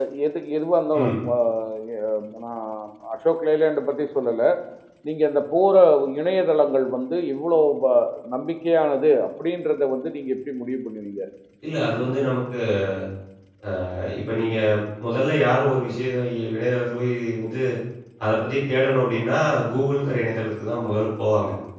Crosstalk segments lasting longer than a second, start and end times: none

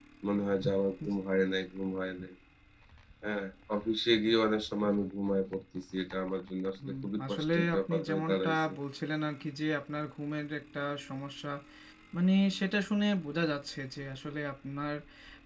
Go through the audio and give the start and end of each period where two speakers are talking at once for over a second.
7.0-8.7

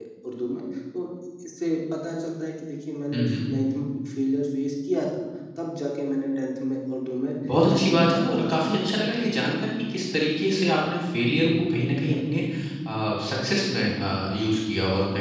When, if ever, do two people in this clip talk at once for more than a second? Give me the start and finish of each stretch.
7.7-9.0

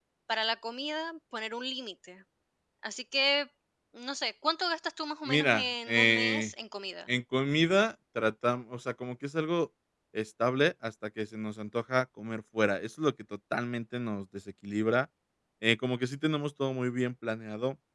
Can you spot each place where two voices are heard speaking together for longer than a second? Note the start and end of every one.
5.3-6.5

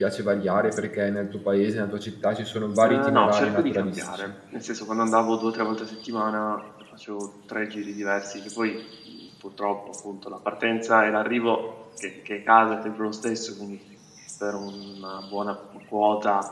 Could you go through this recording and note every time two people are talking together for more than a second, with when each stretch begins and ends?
2.8-4.3

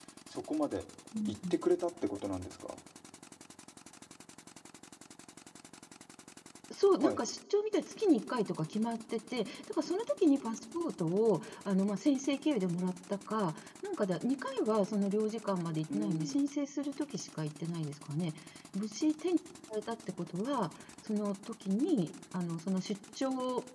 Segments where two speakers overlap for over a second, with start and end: none

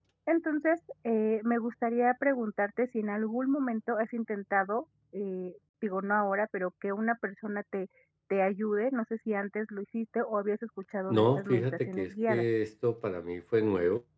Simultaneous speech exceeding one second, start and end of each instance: 11.1-12.4

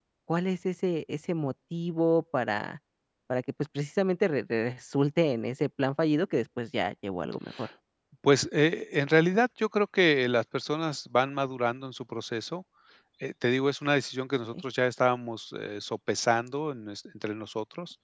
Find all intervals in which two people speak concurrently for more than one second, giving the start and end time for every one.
none

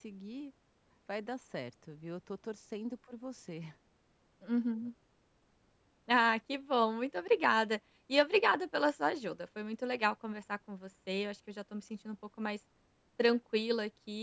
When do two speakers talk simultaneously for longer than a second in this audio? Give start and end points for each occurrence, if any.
none

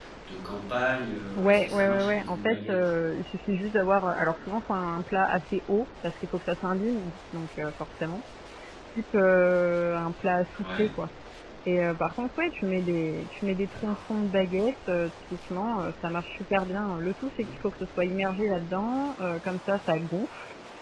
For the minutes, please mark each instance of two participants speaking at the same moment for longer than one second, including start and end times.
1.4-2.8

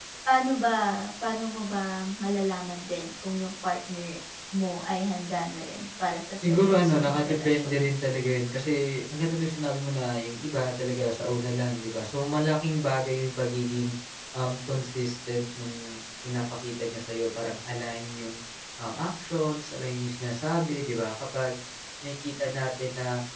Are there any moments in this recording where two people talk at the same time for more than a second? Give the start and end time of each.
6.5-7.8

